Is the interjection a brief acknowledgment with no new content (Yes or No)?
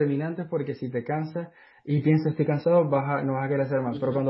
Yes